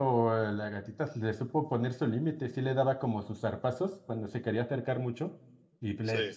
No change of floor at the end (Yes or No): Yes